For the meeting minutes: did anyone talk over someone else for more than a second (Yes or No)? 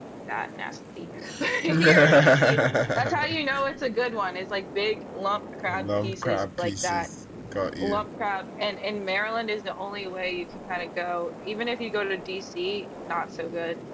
Yes